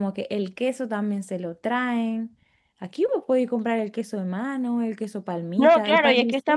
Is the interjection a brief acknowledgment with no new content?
No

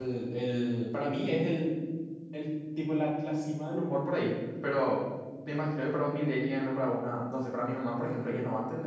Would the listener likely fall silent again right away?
No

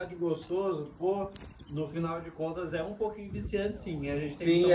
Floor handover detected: Yes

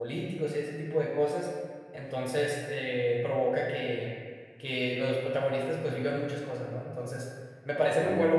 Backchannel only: Yes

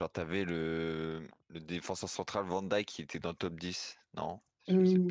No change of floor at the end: No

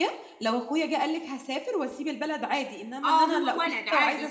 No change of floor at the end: No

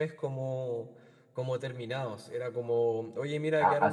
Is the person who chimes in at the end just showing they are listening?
Yes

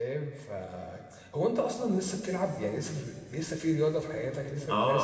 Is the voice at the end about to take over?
Yes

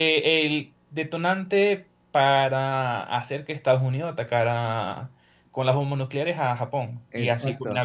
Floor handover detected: Yes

